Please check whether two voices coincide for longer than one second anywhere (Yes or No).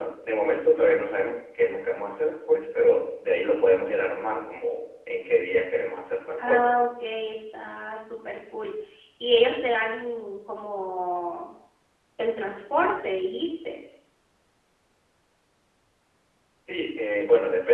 No